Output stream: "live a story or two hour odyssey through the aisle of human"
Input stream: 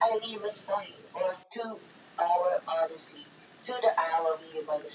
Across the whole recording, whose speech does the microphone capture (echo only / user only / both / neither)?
echo only